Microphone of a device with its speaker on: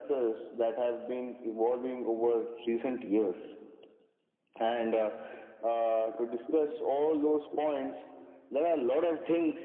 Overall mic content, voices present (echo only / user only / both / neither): echo only